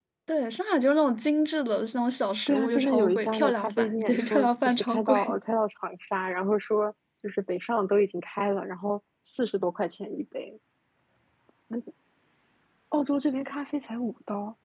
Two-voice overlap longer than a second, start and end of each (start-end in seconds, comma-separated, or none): 2.5-5.2